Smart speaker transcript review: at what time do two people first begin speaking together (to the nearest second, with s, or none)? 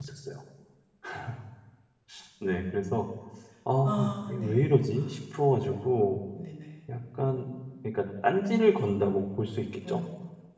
4 s